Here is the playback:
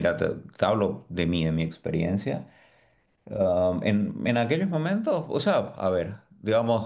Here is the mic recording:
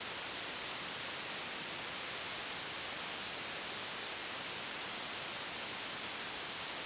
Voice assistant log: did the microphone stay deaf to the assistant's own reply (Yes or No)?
Yes